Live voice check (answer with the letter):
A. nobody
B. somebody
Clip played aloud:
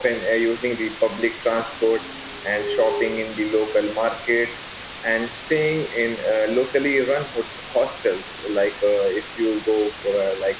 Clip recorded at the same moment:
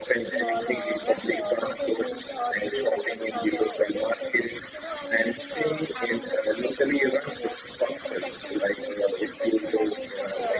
B